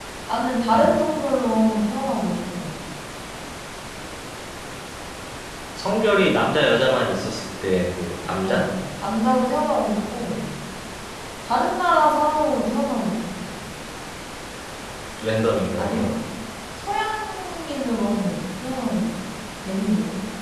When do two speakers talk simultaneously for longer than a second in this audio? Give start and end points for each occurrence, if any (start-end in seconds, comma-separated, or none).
none